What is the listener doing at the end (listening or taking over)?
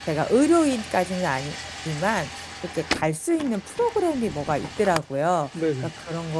listening